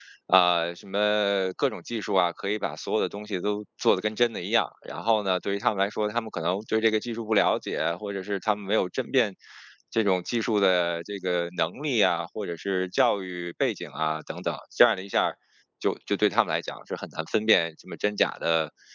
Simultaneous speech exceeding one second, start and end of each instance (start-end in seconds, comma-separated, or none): none